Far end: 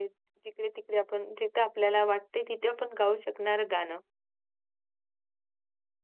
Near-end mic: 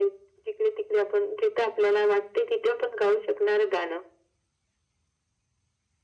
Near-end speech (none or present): none